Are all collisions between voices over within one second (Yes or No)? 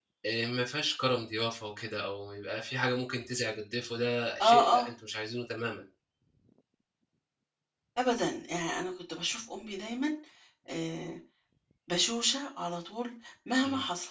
Yes